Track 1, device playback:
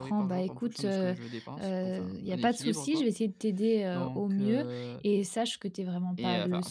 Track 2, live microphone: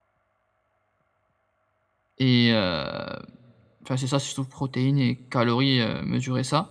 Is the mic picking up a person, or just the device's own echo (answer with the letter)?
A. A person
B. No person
A